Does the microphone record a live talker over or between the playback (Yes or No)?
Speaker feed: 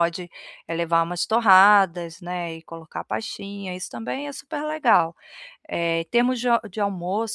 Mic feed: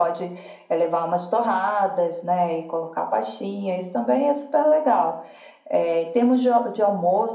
No